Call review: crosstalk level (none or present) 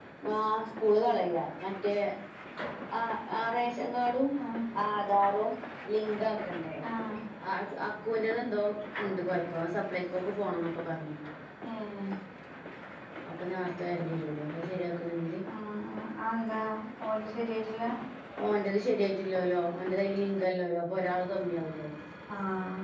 none